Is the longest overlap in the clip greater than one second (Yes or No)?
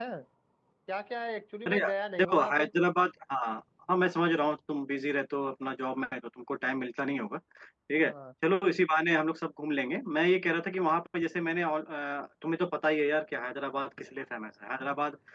No